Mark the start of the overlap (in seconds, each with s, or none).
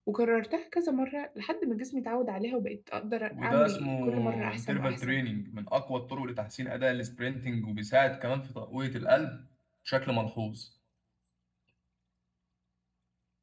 3.3 s